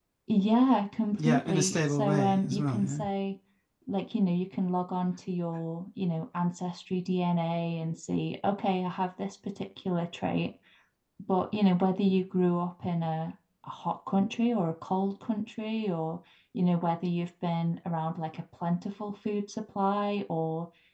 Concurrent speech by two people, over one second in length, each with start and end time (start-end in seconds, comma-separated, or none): 1.2-3.0